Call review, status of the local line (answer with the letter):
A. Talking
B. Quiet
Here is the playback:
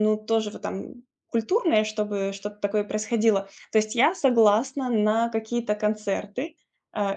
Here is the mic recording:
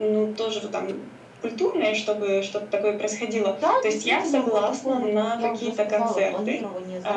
A